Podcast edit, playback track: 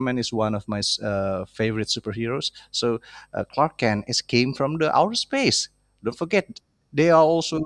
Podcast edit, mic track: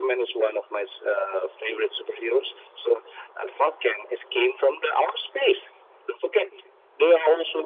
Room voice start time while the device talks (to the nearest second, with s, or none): none